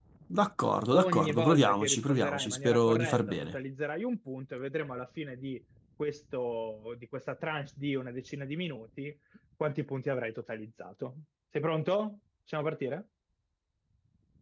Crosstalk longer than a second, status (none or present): present